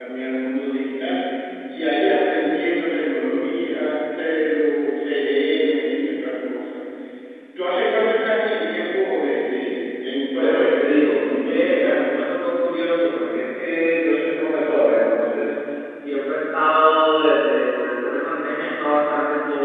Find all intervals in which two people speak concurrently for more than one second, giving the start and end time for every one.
10.3-12.1

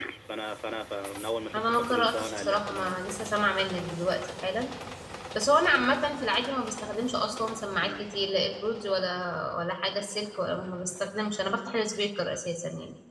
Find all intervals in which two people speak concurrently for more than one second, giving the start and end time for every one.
1.5-3.2

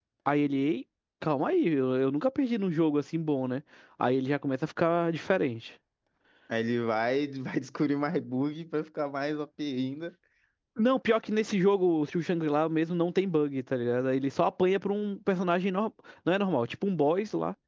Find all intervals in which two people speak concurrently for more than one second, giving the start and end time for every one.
none

